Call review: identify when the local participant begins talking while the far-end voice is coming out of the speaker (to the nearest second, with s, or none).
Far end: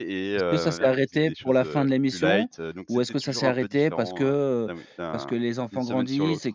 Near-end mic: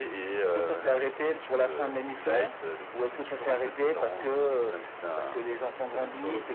none